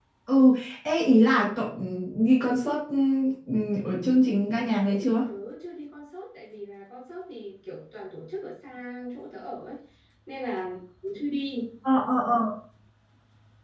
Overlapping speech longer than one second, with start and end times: none

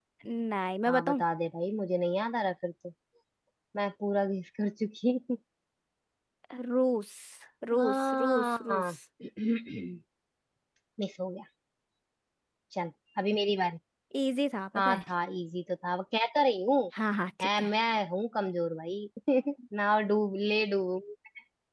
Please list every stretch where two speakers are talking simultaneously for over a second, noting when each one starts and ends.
7.7-8.9

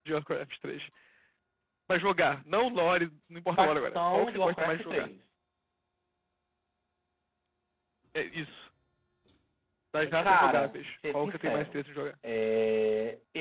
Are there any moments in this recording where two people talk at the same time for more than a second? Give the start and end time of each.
3.6-5.1, 10.2-11.8

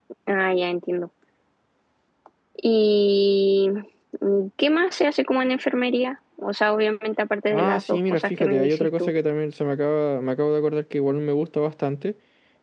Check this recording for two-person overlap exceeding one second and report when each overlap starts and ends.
7.5-9.1

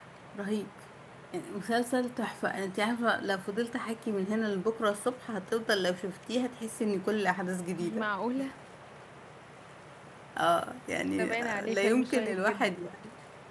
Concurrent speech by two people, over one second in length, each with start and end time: 11.2-12.8

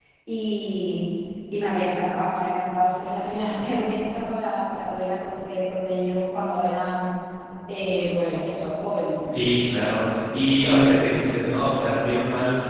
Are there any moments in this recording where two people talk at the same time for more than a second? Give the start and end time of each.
none

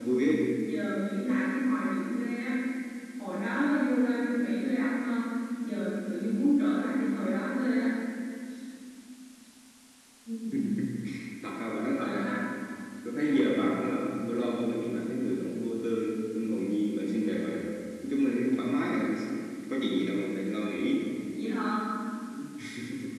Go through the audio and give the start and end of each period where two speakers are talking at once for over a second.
none

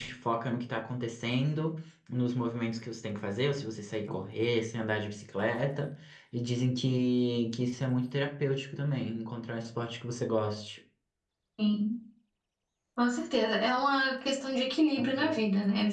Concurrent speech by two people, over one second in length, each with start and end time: none

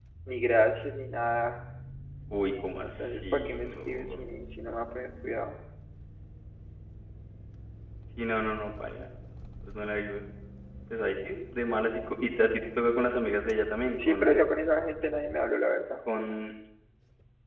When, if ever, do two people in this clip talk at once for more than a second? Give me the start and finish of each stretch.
2.8-4.2

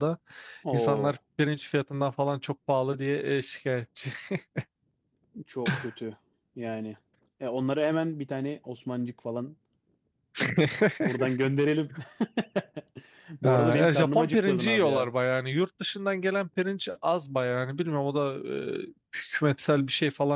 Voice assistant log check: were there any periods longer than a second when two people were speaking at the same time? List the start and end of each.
13.4-15.1

